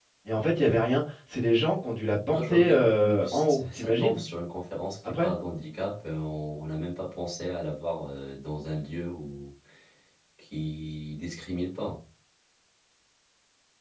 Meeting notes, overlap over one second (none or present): present